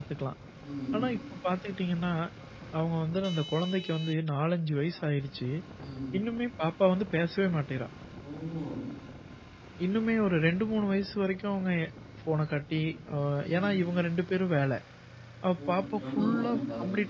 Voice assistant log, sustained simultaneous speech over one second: present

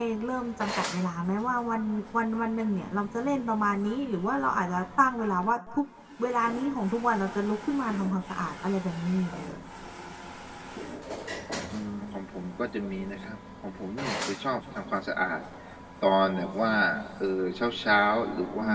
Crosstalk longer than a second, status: none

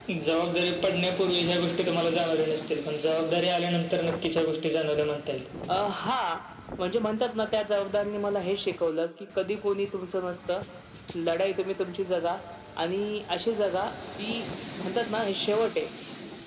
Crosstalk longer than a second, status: none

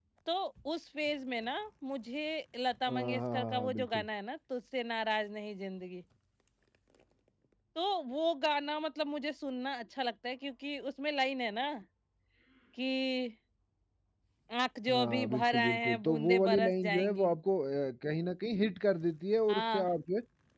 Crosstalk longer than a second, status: present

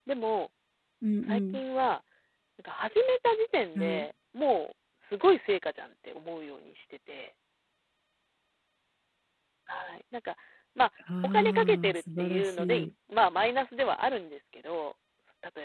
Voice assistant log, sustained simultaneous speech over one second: present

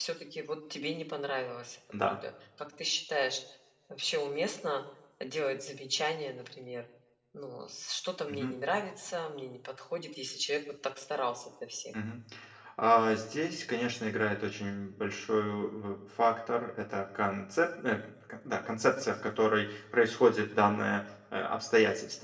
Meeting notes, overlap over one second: none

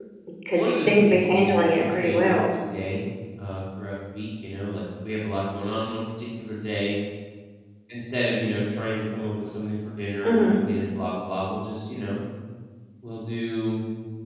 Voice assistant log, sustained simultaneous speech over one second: present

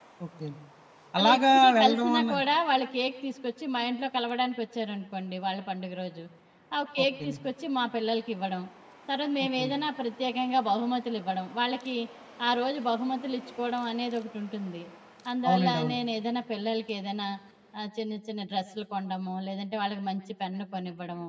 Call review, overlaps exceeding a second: present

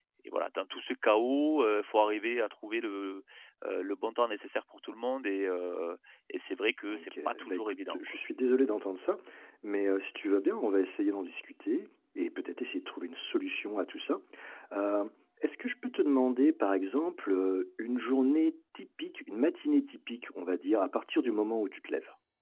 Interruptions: present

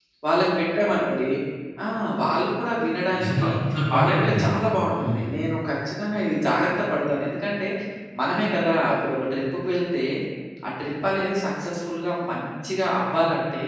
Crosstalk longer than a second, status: none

